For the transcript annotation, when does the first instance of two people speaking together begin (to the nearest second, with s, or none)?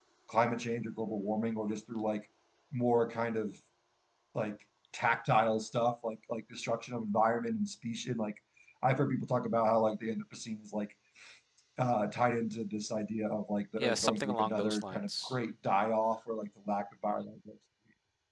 14 s